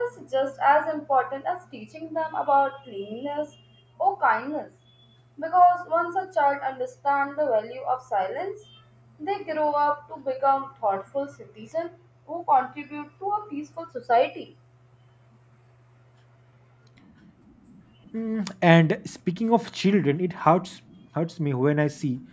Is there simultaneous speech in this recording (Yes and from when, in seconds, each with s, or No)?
No